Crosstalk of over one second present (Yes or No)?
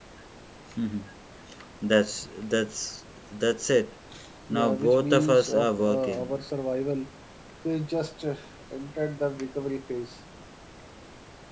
Yes